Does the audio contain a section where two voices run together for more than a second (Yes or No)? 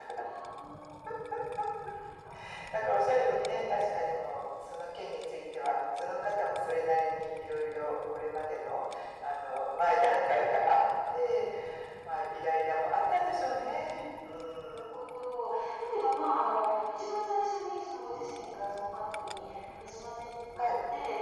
No